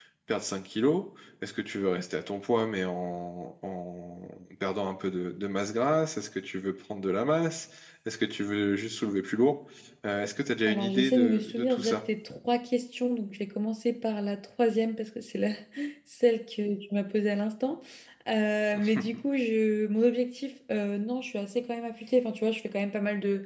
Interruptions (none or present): present